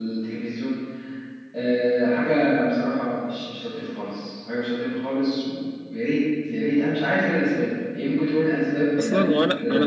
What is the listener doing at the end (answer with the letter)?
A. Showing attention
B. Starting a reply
B